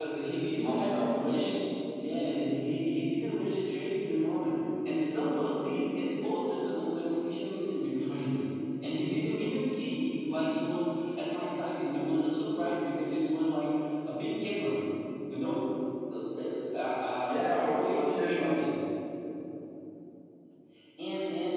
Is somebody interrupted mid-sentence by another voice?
Yes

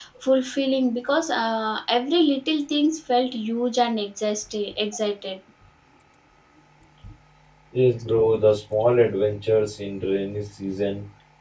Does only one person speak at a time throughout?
Yes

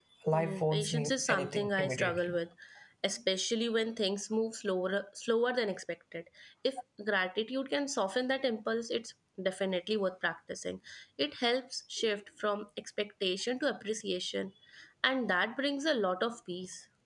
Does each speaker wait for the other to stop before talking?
No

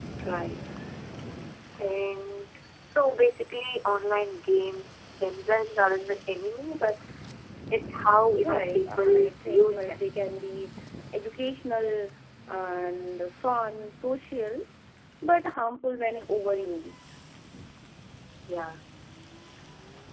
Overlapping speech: Yes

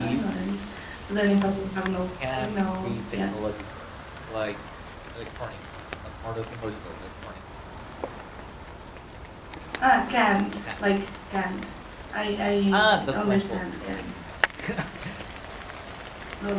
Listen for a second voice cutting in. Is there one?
Yes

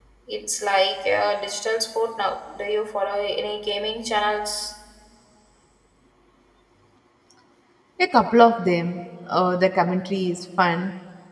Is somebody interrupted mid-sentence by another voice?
No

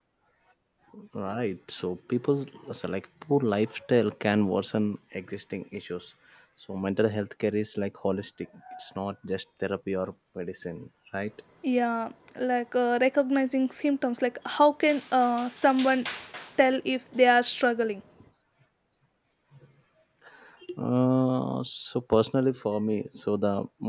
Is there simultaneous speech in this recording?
No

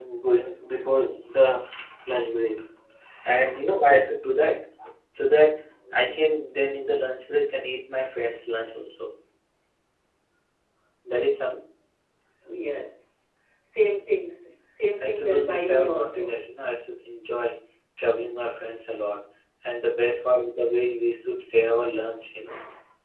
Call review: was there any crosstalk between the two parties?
Yes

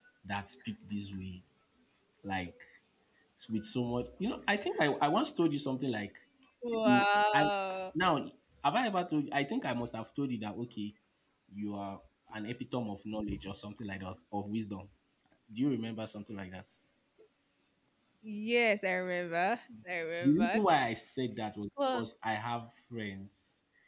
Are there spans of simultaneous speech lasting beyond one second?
No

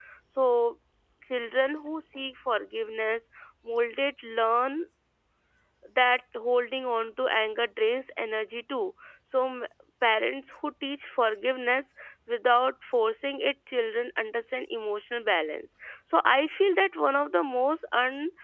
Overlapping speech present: No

